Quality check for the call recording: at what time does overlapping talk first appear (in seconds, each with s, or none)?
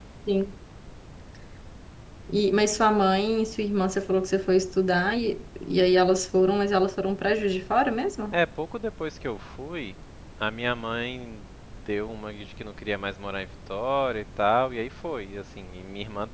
none